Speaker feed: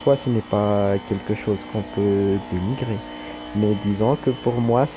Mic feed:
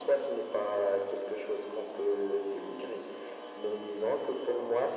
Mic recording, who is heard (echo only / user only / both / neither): echo only